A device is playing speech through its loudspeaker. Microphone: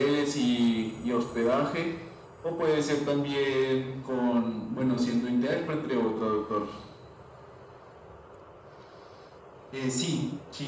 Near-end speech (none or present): none